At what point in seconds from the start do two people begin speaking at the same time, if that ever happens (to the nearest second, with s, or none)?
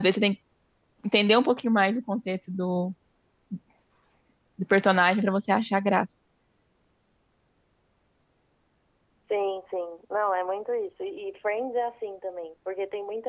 none